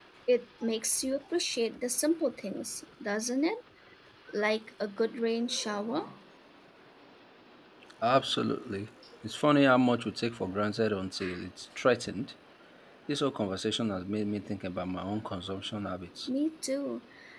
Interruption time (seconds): none

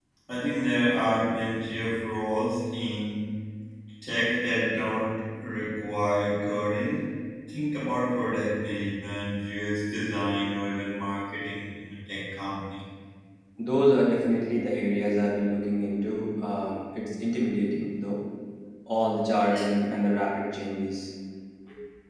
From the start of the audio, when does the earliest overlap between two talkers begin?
none

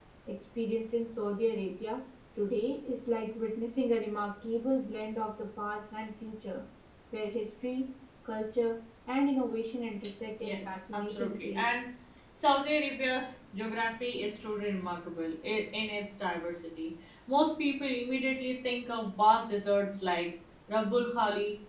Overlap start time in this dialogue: 10 s

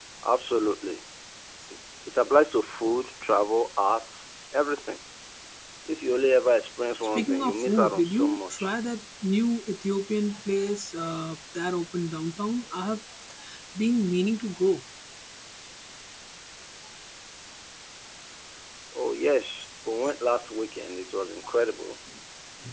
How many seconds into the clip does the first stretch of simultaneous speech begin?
7 s

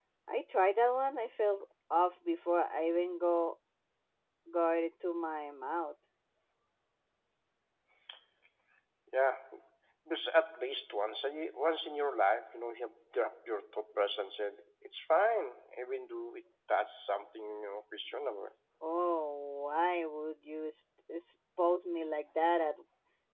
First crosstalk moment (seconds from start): none

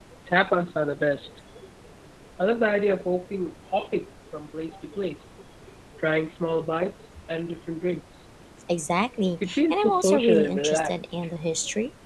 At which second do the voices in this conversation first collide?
9 s

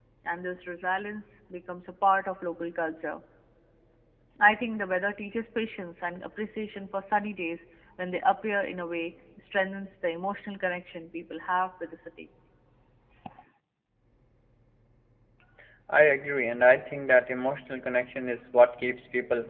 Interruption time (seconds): none

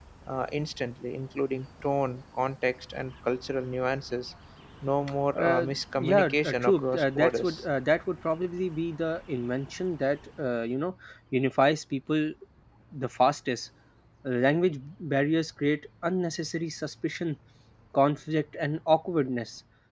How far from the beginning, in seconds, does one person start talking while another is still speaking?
5 s

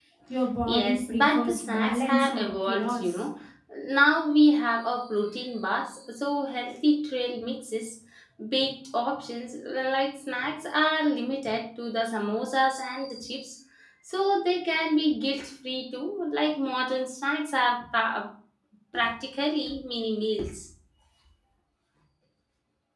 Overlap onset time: 1 s

